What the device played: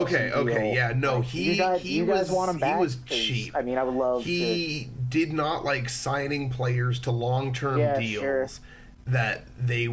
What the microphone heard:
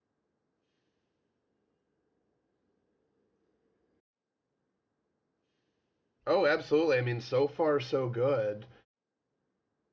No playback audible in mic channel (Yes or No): Yes